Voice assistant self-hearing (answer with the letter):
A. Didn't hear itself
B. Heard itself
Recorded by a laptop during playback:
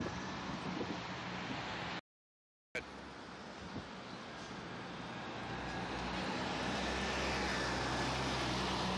A